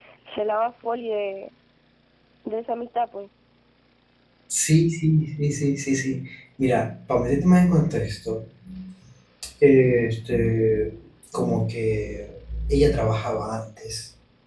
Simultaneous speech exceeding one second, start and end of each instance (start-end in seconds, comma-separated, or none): none